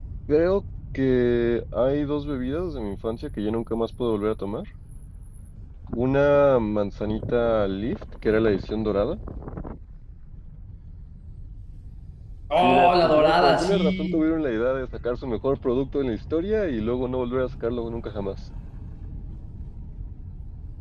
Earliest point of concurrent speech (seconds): 12.6 s

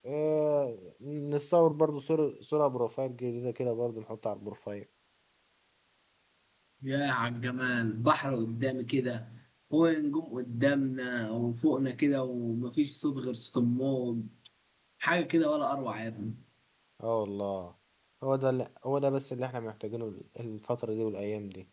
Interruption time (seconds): none

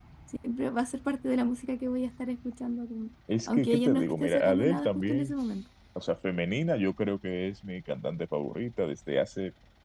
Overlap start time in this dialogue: 3.3 s

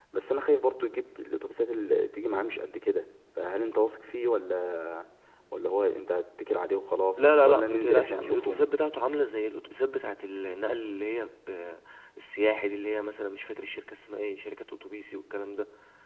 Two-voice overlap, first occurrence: 7.2 s

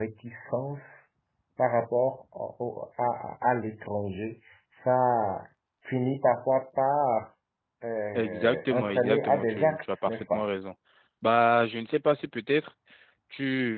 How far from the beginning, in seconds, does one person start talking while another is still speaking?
8.1 s

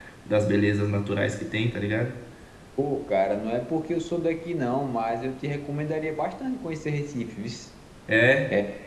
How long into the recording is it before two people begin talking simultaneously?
none

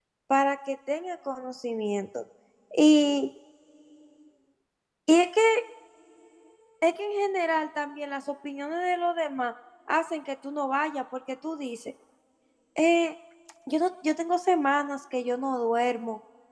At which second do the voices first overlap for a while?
none

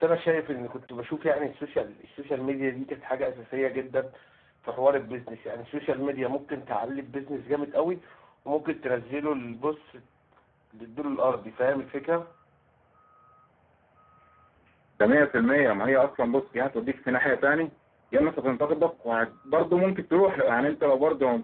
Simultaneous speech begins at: none

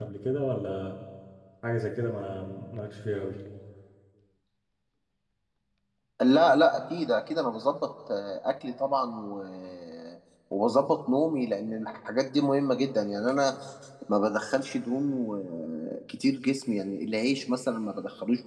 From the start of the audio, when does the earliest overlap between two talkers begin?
none

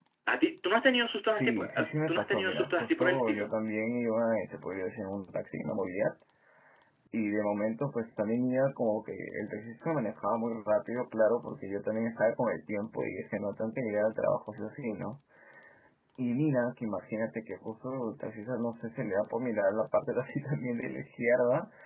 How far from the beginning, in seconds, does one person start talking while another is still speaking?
1.3 s

